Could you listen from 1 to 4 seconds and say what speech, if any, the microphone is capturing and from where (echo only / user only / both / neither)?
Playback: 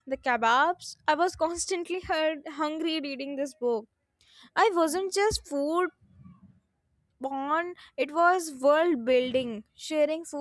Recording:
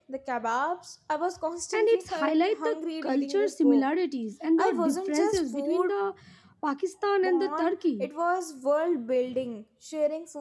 both